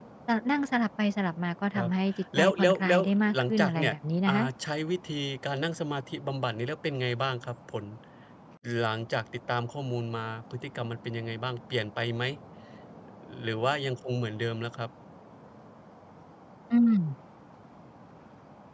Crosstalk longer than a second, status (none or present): present